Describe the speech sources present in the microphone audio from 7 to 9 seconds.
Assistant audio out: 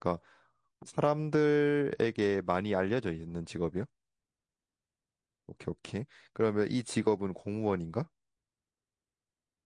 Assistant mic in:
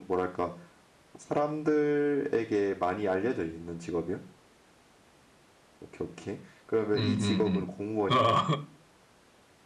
both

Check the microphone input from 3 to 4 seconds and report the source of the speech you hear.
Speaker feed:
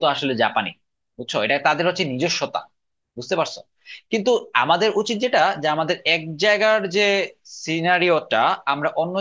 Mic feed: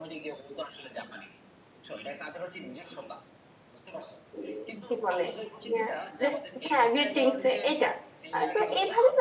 echo only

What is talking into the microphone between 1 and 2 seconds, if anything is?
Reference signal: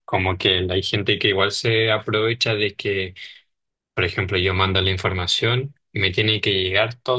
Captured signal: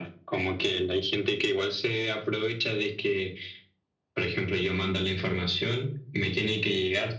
echo only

